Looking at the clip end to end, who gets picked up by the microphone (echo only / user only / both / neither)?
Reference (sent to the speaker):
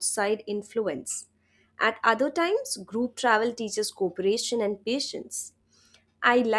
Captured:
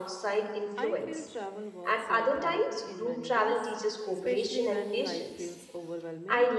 both